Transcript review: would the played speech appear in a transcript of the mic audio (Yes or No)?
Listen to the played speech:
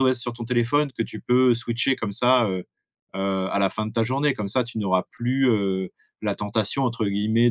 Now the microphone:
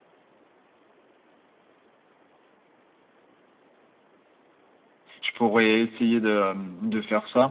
No